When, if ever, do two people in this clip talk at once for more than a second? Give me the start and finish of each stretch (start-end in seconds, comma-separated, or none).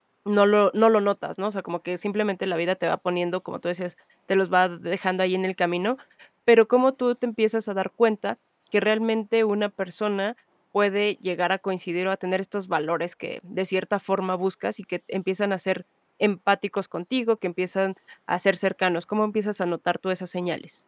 none